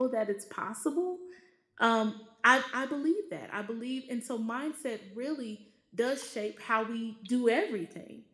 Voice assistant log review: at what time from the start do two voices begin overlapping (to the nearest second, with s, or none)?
none